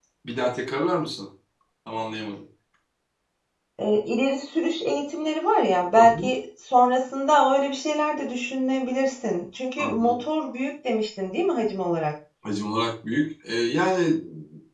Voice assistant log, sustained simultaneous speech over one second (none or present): none